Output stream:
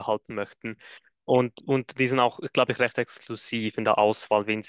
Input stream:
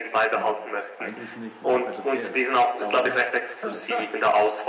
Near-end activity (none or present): present